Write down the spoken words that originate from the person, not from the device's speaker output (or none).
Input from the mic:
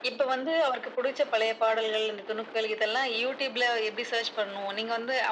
none